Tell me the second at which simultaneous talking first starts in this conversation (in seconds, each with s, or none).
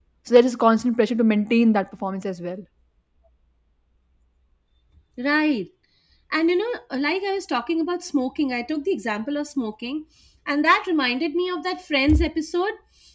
none